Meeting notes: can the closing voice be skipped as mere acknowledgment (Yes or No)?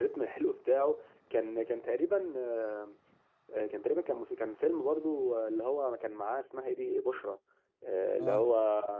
Yes